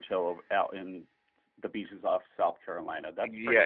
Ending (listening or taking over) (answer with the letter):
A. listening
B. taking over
B